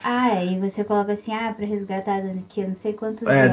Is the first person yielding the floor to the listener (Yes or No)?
Yes